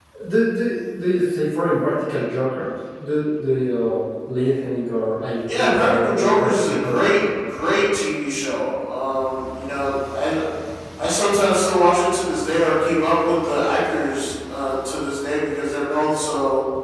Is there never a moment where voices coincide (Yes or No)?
No